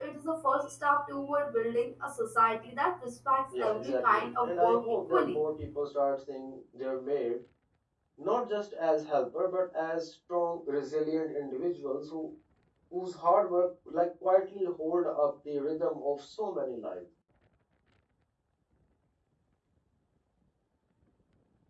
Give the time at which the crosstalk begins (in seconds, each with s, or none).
3.5 s